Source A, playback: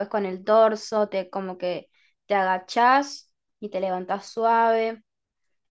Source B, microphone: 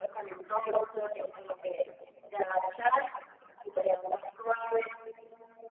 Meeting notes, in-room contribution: none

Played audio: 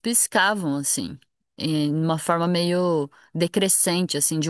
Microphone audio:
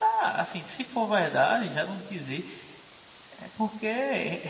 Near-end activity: present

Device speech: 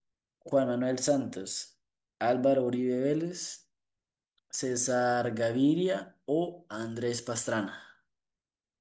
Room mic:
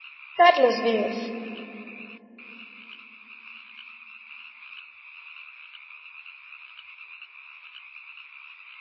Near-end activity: present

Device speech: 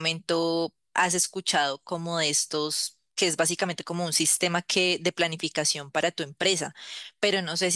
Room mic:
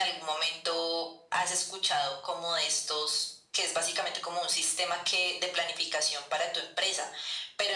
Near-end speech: none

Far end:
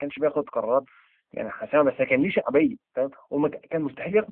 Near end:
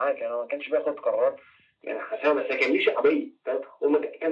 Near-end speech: none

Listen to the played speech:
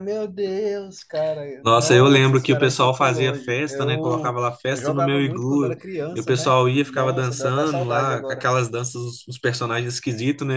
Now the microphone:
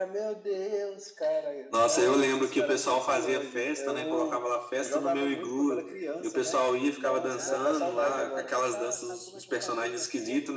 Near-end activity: present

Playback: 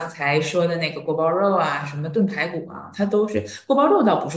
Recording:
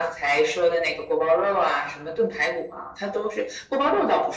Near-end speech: none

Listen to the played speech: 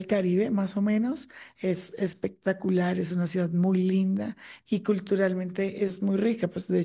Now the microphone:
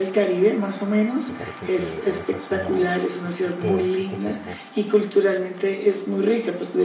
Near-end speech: present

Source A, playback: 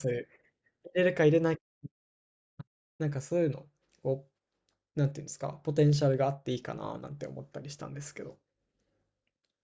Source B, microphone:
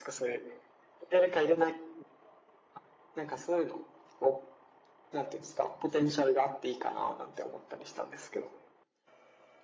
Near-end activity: none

